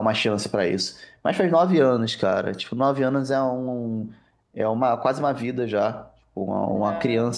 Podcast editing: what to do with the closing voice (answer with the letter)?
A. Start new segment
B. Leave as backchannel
B